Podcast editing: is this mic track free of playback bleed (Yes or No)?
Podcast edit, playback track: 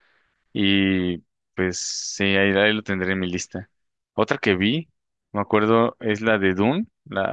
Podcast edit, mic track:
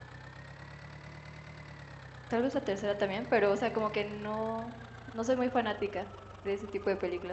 Yes